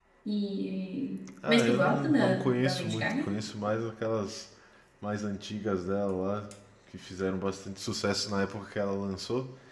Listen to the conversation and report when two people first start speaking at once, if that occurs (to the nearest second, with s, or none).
1 s